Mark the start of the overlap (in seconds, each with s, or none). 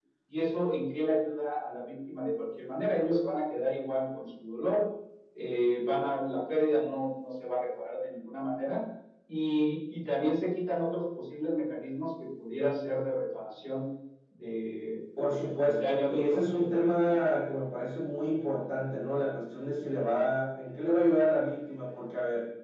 15.2 s